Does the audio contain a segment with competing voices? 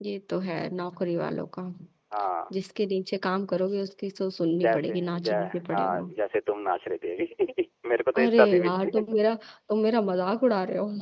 Yes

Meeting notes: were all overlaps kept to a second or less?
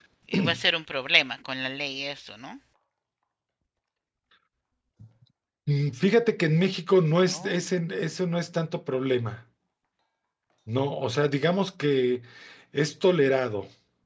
Yes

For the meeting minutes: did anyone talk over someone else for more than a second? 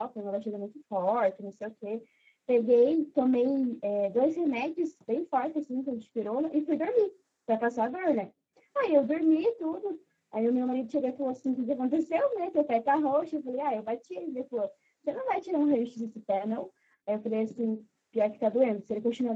No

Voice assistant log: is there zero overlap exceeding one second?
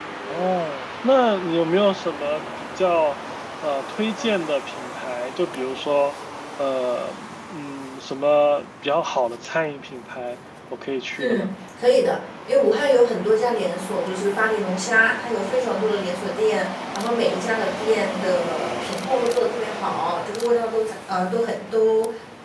Yes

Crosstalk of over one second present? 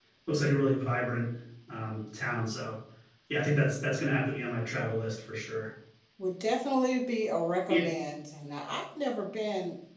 No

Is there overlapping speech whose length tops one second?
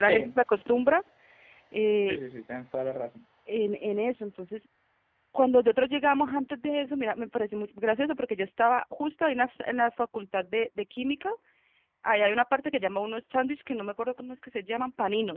No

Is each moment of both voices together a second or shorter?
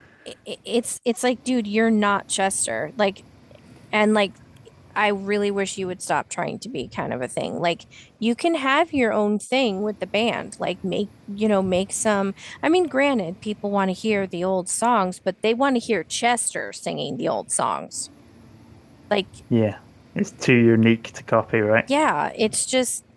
Yes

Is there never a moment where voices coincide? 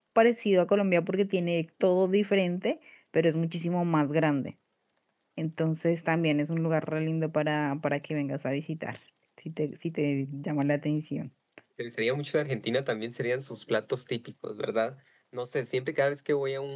Yes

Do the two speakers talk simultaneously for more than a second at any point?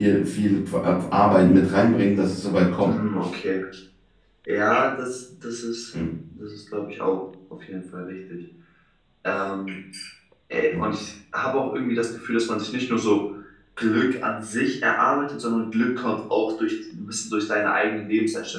No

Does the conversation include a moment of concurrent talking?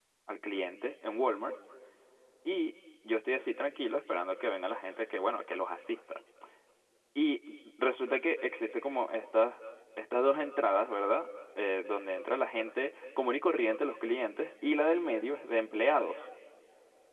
No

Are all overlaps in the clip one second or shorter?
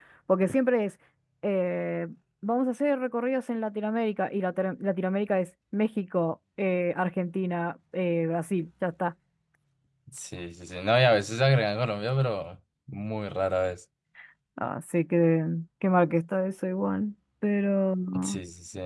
Yes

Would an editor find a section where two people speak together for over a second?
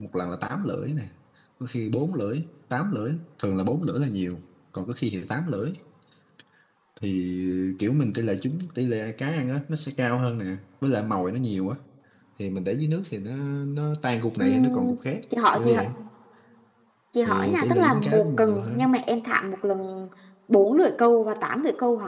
Yes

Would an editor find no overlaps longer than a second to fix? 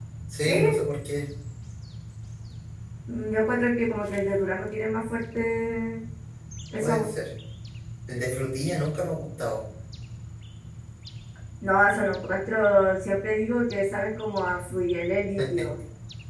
Yes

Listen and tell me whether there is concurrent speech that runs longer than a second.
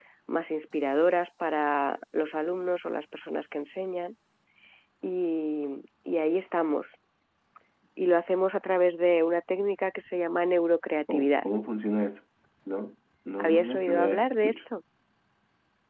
Yes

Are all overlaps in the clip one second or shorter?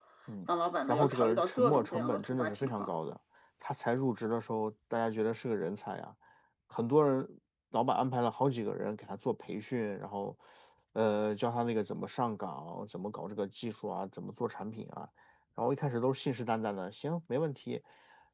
No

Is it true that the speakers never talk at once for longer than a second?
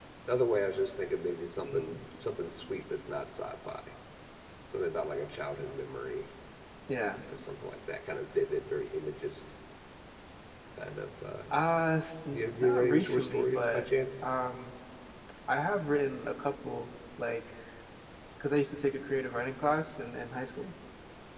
No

